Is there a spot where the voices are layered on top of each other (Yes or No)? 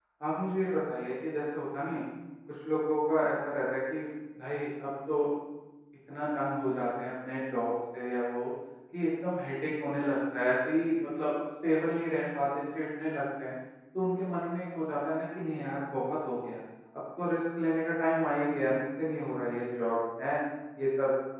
No